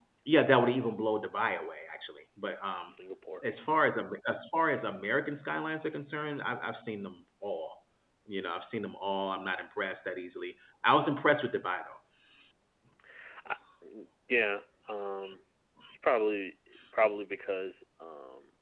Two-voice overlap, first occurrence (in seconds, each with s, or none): none